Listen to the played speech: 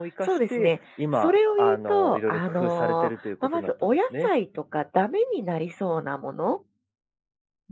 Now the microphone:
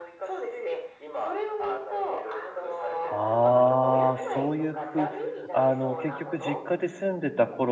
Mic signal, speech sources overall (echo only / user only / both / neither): both